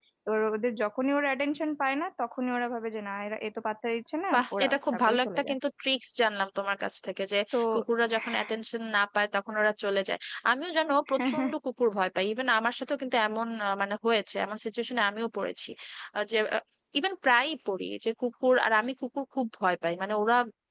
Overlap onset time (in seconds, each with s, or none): 4.3 s